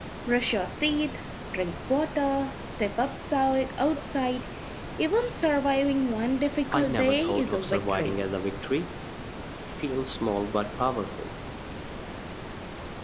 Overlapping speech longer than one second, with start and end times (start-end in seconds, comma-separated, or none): 6.7-8.2